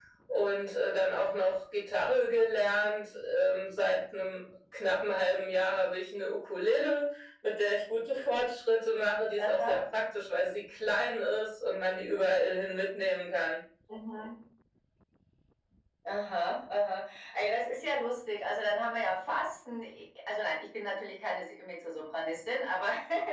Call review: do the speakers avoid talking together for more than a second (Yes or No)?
Yes